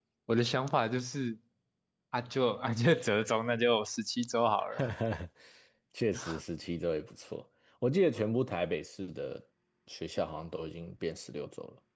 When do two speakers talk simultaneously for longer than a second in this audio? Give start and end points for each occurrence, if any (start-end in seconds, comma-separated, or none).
none